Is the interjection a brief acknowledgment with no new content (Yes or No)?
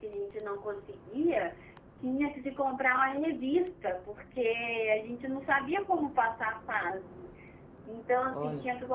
Yes